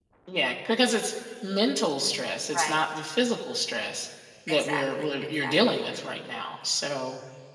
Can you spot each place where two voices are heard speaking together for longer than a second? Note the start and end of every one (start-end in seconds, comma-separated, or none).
4.5-5.9